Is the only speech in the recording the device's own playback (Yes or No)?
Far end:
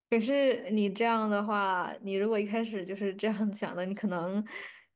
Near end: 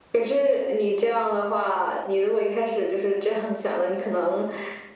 Yes